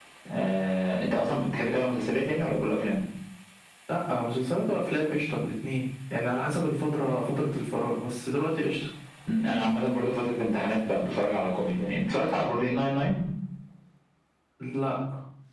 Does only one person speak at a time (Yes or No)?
Yes